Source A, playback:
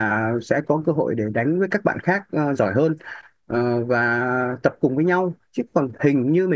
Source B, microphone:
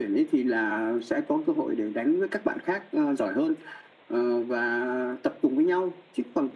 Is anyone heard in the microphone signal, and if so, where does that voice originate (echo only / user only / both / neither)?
echo only